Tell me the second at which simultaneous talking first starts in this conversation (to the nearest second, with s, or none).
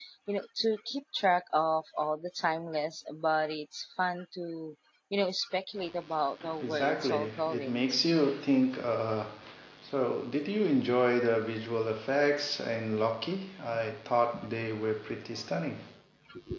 7 s